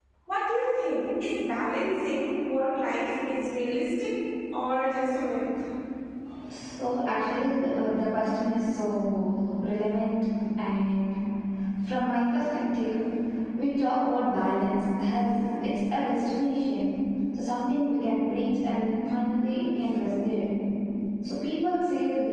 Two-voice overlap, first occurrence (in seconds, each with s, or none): none